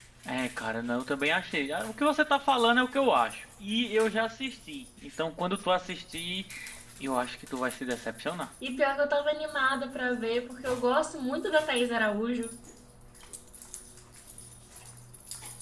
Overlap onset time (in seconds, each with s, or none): none